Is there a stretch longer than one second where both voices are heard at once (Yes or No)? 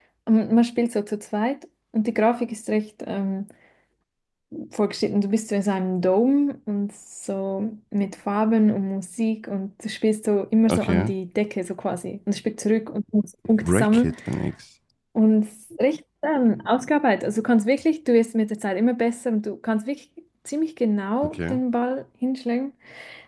No